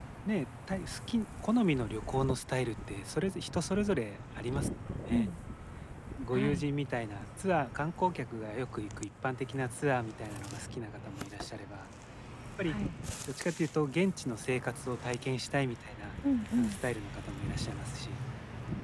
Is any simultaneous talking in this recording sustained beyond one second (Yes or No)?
No